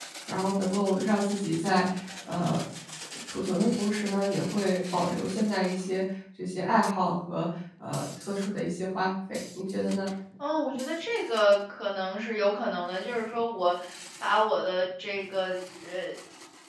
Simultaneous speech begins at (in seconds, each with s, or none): none